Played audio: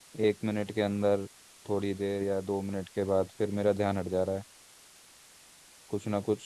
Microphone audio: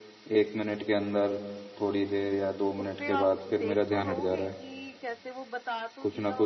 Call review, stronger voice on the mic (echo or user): echo